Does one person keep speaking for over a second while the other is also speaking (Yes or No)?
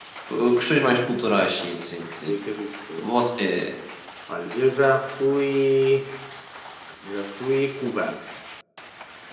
No